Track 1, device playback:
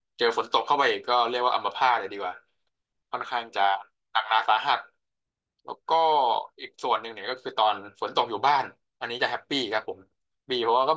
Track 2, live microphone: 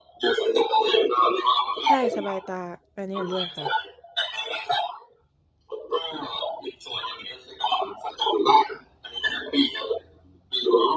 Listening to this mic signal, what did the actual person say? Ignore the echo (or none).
ใช่สบายตาอันนี้เห็นด้วยค่ะ